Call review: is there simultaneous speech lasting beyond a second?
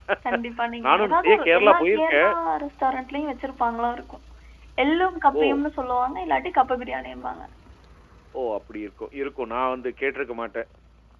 Yes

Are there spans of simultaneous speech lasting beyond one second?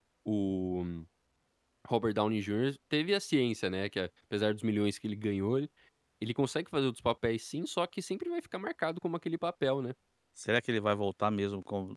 No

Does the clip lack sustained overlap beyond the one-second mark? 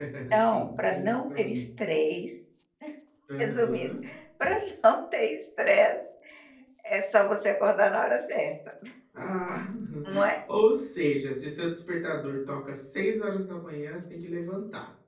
No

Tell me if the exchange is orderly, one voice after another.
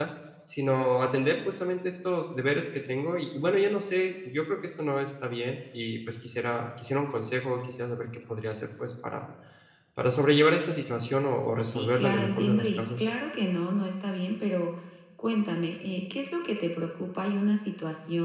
No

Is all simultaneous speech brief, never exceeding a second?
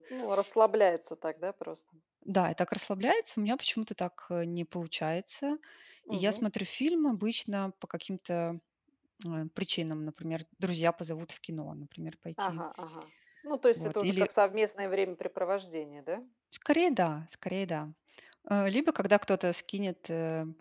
Yes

